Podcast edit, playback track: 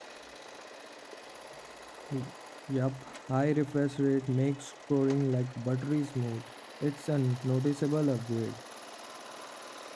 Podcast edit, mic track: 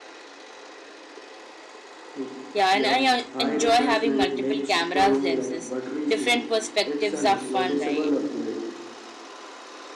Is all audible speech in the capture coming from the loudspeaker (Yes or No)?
No